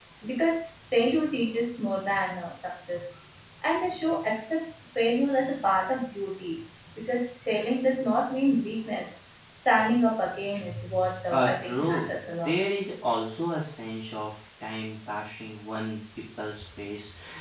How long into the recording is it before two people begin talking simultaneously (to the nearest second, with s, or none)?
11 s